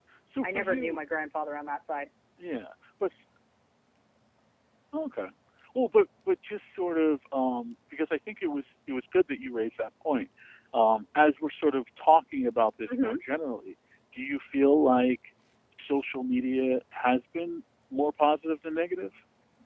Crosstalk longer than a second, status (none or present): none